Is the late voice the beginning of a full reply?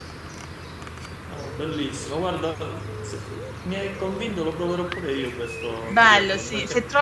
Yes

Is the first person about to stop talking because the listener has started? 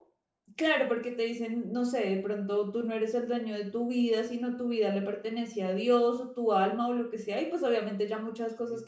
Yes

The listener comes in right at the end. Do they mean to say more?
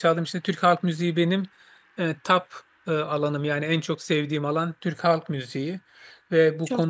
No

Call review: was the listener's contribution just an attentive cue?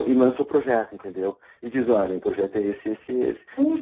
No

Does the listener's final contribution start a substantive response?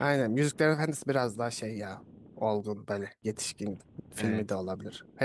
No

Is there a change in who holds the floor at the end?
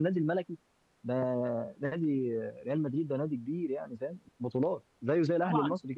Yes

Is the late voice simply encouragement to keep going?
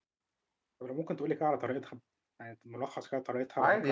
No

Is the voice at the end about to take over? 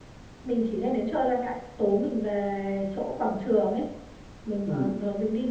No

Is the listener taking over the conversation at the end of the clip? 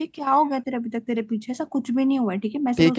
Yes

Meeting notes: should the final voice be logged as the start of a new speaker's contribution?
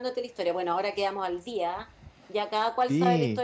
No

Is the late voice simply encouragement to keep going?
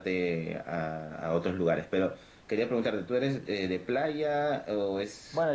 No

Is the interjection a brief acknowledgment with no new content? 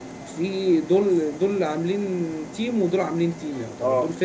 Yes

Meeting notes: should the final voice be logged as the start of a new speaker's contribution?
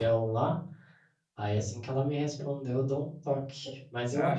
No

